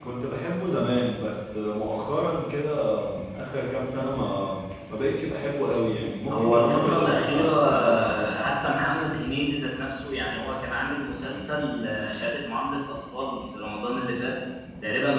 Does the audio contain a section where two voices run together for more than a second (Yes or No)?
Yes